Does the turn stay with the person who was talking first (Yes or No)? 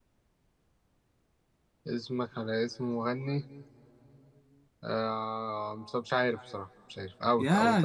No